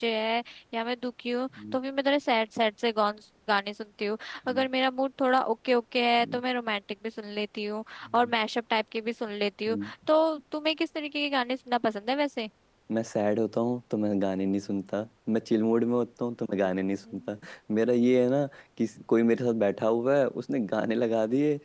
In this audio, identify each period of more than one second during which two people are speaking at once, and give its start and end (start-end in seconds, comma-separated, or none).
none